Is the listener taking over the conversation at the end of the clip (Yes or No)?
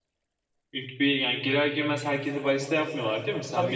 Yes